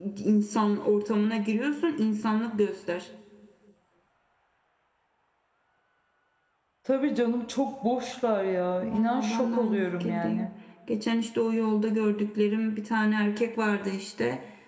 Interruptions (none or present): present